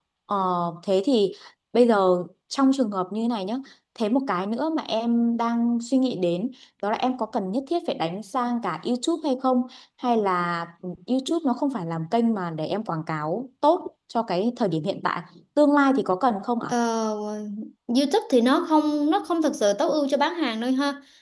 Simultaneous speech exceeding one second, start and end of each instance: none

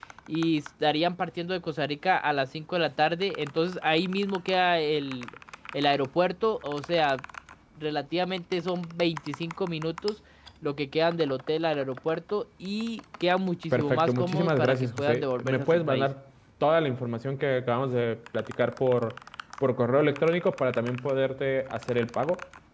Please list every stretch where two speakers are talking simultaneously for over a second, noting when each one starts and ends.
13.7-16.1

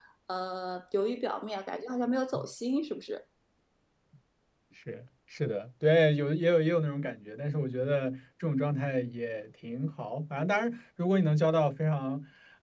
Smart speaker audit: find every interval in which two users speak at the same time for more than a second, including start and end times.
none

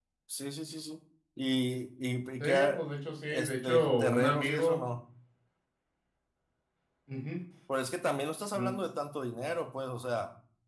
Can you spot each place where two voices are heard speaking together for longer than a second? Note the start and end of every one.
3.3-4.8

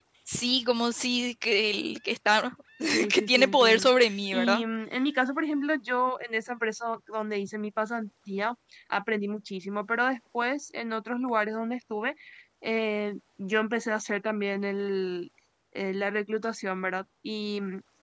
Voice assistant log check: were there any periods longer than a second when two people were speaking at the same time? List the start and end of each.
3.1-4.6

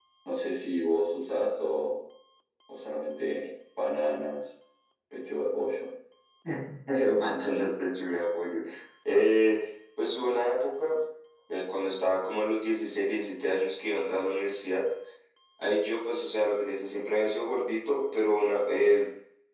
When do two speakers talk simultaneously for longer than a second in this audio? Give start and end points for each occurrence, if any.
none

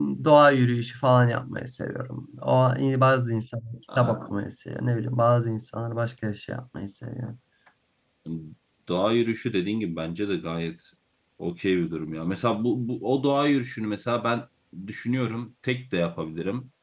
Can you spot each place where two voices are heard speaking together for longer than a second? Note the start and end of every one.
none

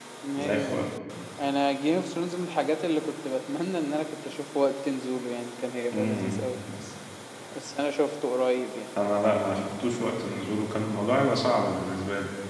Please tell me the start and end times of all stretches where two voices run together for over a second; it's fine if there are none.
none

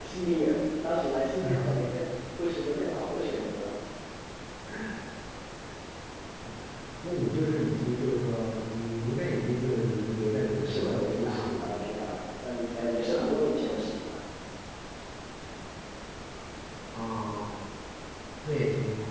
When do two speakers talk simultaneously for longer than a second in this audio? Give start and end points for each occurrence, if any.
10.6-11.9

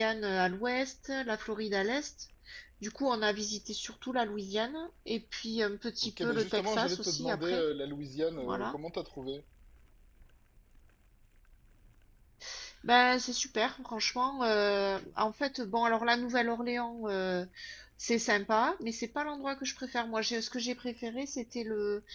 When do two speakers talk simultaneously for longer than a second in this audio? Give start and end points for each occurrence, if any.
6.0-7.6

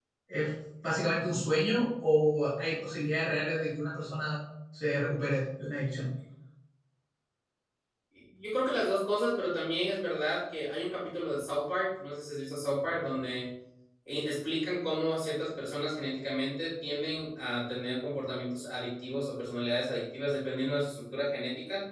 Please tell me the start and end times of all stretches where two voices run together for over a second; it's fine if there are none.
none

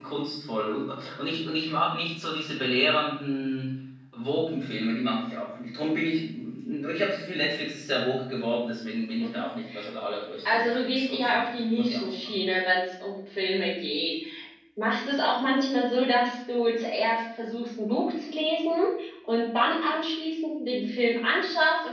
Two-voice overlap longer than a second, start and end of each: 10.4-12.4

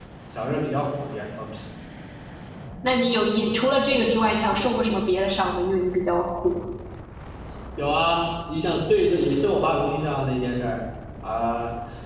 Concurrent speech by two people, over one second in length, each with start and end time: none

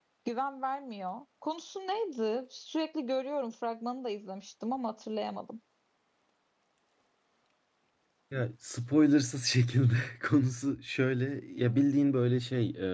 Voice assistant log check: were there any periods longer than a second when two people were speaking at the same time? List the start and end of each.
none

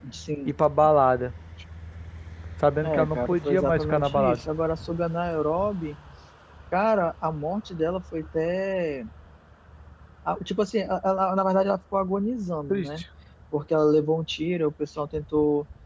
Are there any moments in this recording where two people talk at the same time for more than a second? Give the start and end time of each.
2.8-4.4

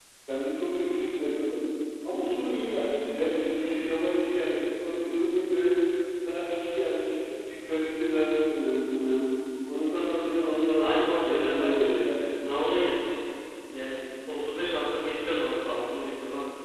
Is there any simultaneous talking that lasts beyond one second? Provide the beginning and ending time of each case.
10.8-12.2

